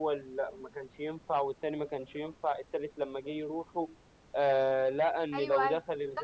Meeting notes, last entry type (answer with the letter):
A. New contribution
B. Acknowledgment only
A